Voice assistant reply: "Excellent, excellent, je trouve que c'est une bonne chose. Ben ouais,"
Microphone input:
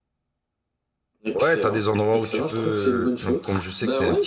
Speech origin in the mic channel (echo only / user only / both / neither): both